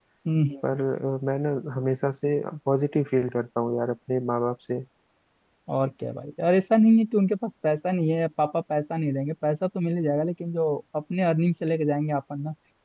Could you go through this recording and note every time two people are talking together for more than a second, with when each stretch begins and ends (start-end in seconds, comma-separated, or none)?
none